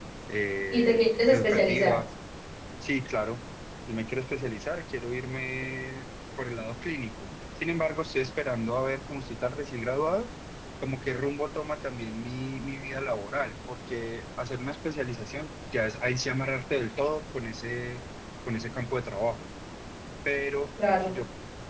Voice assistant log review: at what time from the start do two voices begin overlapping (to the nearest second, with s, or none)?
1 s